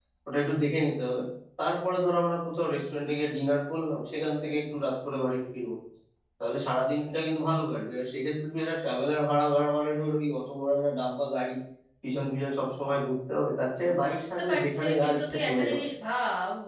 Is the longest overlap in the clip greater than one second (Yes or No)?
Yes